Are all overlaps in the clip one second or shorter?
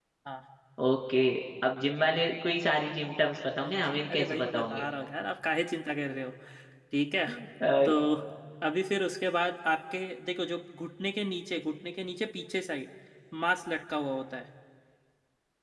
No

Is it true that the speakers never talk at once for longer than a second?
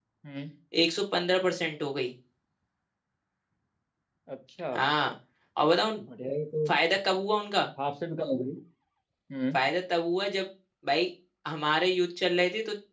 Yes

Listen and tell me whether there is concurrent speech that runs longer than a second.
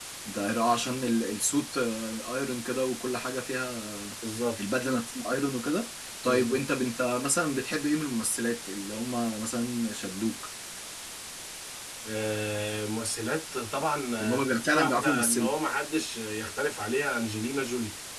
Yes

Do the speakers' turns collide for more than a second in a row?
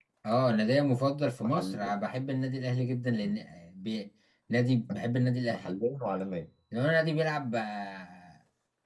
No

